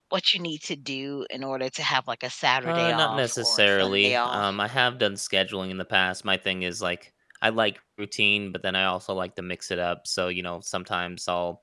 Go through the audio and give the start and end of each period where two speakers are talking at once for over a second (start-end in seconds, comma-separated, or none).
2.6-4.5